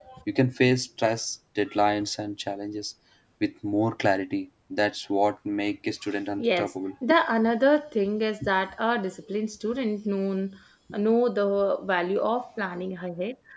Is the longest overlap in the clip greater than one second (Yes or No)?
No